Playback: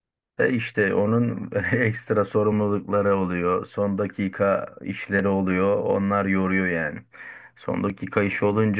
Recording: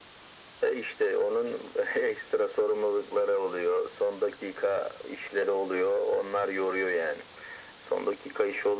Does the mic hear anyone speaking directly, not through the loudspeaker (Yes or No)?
No